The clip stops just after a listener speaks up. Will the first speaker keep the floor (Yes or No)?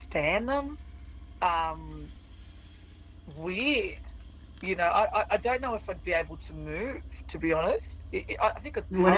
No